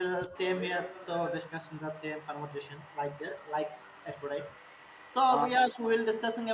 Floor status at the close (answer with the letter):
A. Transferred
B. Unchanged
B